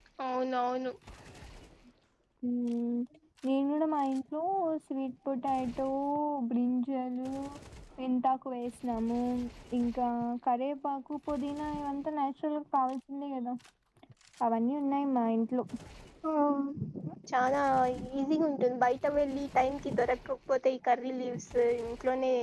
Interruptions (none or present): none